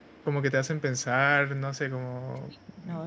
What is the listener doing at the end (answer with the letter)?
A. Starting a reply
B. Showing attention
A